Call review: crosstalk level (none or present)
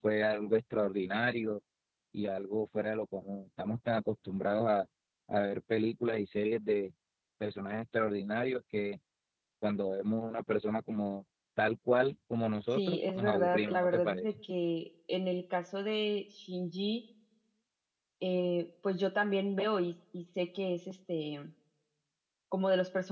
present